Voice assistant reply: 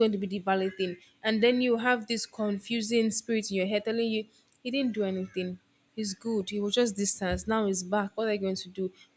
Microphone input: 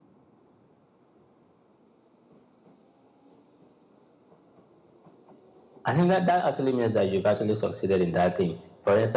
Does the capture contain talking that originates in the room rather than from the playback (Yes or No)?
Yes